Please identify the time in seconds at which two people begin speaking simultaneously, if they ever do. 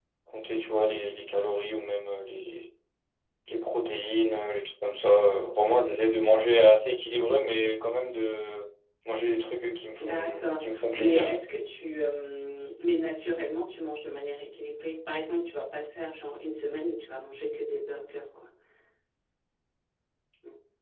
10.0 s

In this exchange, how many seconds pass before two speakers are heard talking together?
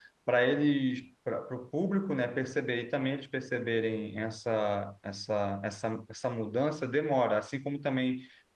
none

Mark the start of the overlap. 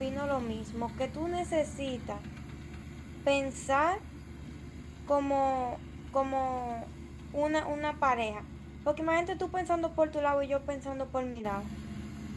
none

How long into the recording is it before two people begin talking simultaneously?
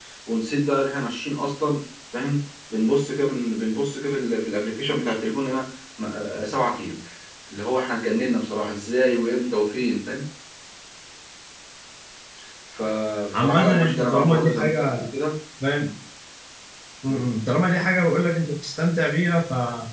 13.3 s

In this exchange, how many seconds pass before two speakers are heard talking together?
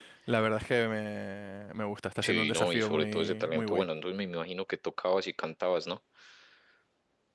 2.2 s

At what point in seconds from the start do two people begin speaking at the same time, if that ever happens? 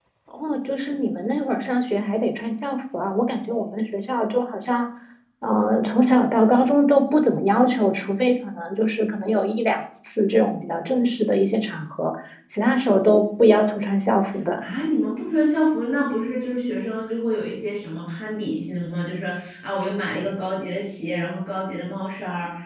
none

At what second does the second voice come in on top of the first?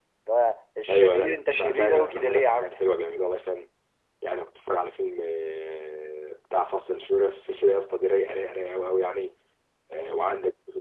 0.9 s

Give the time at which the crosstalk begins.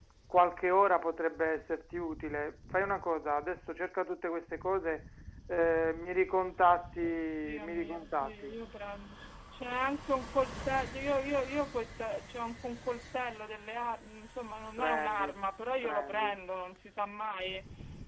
7.0 s

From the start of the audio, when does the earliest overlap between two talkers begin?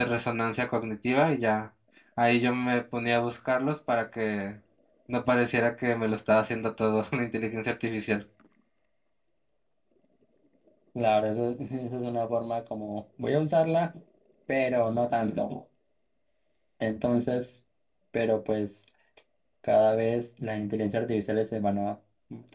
none

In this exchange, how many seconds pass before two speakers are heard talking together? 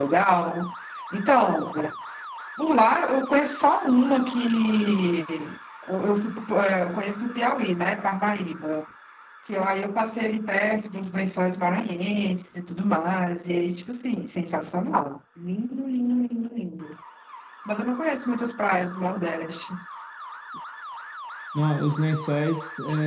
none

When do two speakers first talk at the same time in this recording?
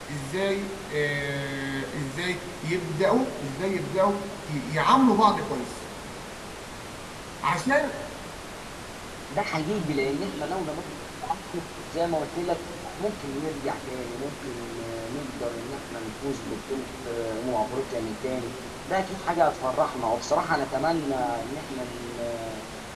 none

